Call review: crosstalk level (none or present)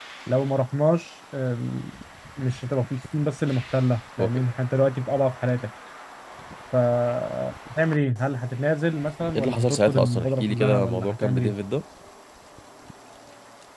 present